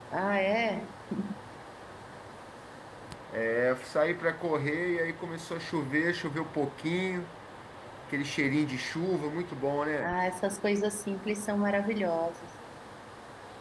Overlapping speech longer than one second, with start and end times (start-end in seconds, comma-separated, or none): none